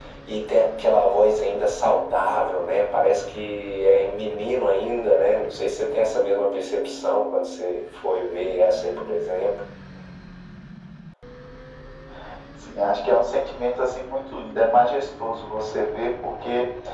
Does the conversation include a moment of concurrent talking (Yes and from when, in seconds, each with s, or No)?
No